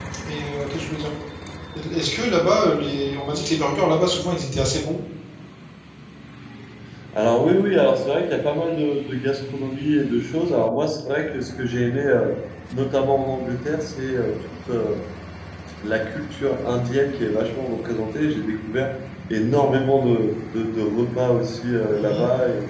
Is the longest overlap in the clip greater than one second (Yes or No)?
No